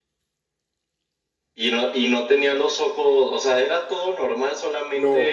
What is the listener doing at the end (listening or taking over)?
taking over